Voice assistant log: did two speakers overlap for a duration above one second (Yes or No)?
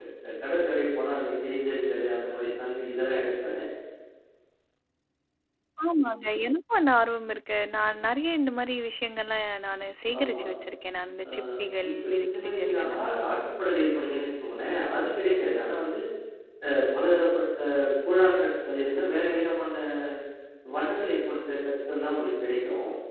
Yes